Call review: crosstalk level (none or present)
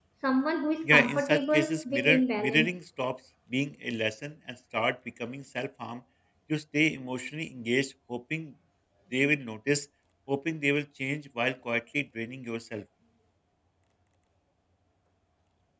present